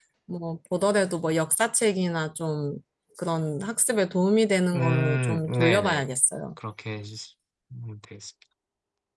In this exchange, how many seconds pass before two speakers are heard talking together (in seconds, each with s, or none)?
4.7 s